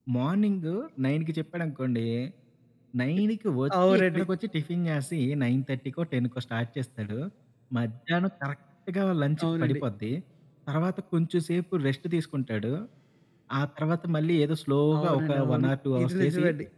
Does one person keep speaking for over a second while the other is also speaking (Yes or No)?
Yes